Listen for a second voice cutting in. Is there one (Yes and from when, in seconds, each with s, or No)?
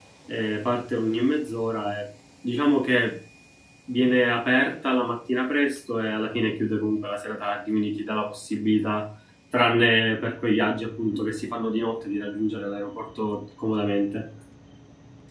No